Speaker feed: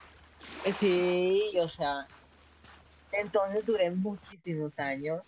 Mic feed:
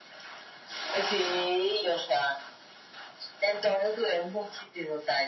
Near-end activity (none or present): none